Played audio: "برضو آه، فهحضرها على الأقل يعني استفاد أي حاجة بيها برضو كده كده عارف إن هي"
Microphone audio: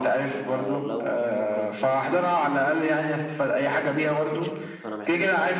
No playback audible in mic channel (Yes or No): No